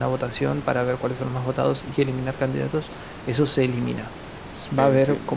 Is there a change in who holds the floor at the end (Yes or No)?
No